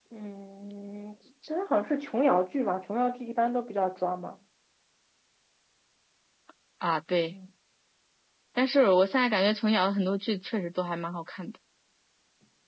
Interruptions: none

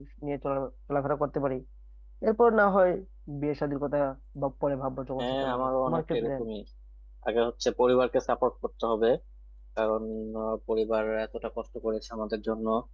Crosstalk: present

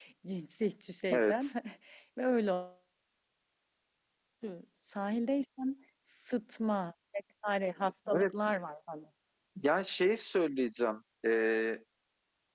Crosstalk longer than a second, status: none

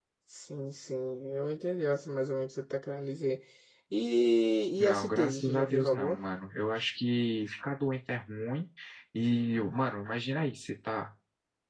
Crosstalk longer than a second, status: present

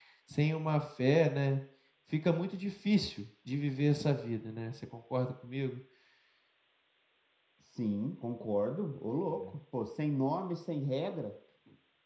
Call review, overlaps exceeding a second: none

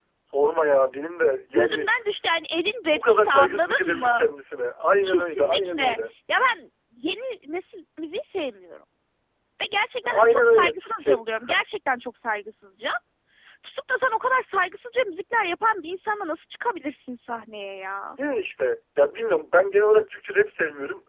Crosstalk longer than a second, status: present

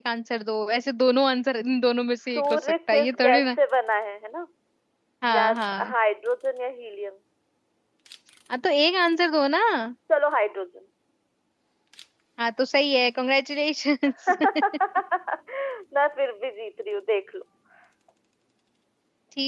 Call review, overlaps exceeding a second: present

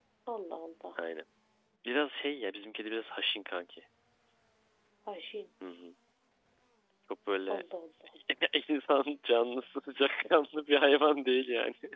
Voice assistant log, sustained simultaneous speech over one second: none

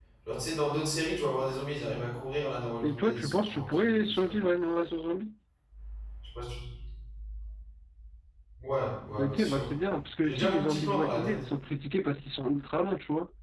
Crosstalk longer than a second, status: present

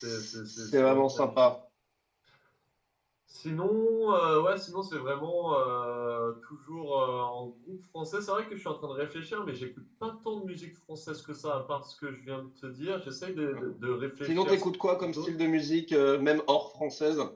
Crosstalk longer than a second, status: present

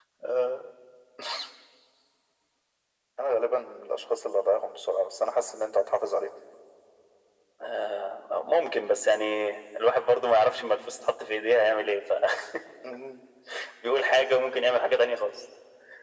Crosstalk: none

